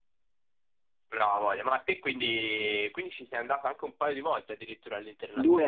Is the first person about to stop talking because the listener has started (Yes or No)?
Yes